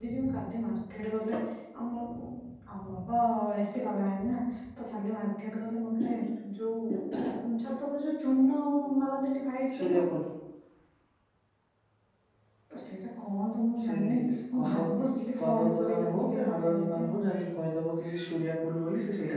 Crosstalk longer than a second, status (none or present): present